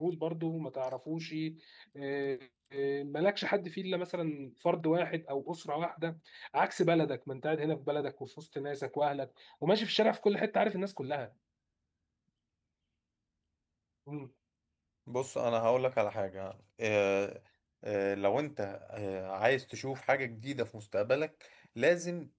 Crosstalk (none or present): none